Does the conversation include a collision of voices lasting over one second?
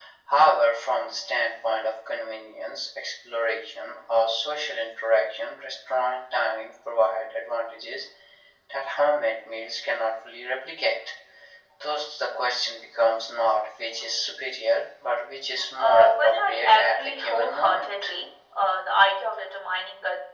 Yes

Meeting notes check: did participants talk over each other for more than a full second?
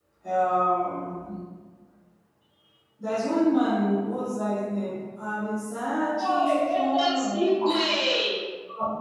Yes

